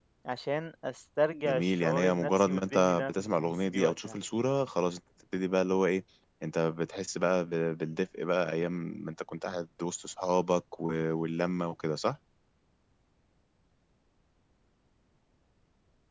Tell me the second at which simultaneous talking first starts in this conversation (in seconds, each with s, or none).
1.4 s